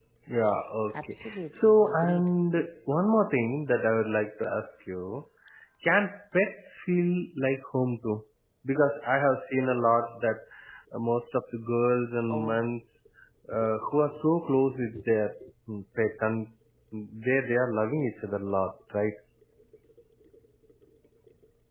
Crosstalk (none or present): present